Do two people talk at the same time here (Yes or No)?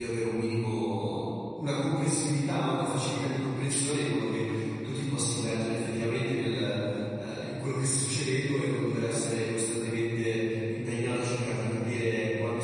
No